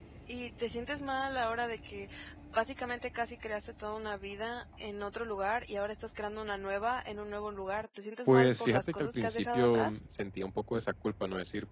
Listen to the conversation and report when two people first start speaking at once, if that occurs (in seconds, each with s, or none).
8.2 s